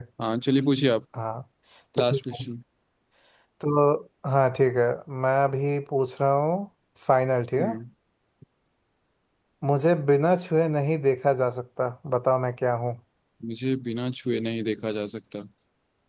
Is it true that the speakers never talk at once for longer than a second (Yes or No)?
Yes